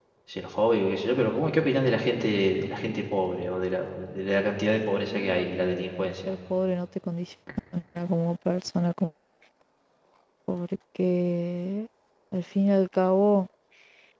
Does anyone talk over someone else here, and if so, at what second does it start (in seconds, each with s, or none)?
5.0 s